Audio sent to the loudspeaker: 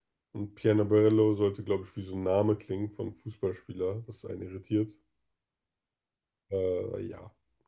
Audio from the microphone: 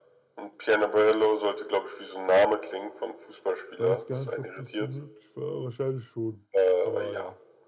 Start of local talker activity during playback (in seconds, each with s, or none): 3.7 s